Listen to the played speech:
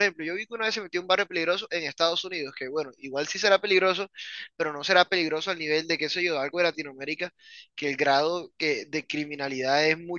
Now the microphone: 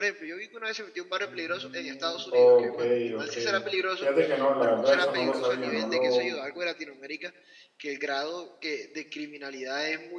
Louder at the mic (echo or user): user